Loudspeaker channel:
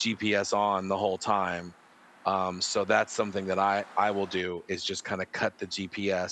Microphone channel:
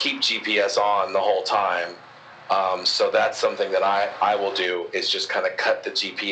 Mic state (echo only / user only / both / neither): echo only